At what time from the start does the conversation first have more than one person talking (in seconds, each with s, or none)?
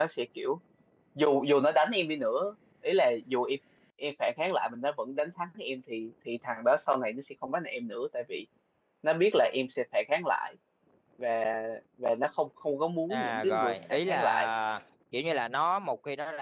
13.1 s